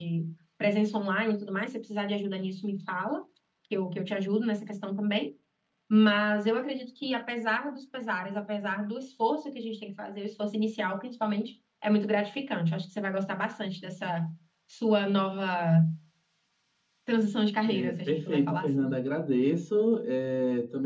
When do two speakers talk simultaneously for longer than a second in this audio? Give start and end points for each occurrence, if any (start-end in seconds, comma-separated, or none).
17.6-18.9